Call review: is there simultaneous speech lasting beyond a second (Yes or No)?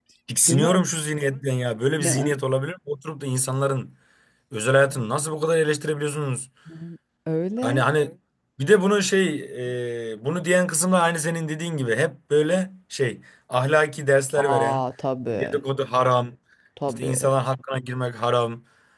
No